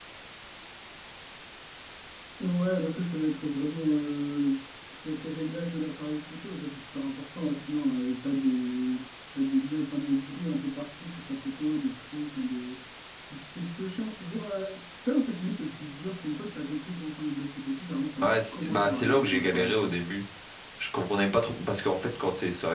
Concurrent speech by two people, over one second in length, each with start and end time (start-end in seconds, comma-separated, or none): 18.2-19.9